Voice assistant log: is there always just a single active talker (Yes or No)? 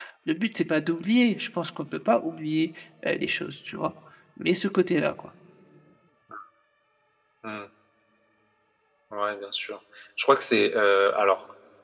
Yes